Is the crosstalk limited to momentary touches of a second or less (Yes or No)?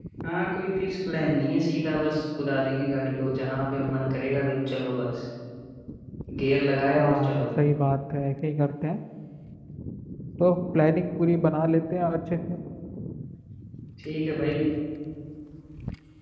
Yes